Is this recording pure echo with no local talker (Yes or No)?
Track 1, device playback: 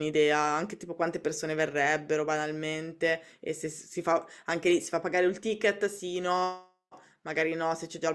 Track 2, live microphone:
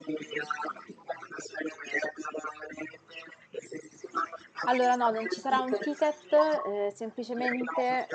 No